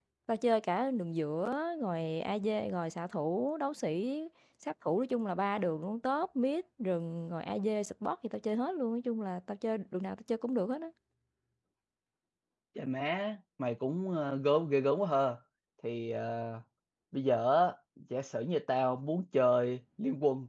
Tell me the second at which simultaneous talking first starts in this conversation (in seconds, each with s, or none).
none